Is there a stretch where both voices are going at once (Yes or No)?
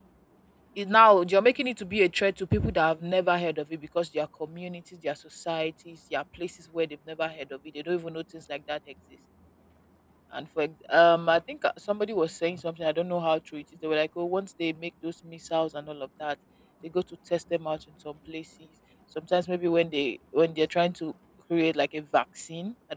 No